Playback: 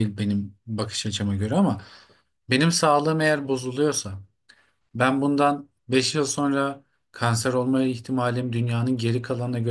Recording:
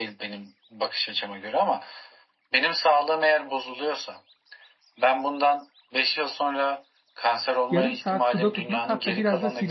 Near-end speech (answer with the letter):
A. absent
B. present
B